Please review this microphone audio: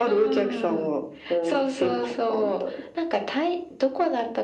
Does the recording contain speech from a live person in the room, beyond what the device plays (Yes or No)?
No